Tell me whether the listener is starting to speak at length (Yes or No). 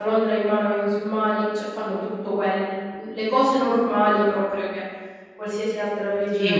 Yes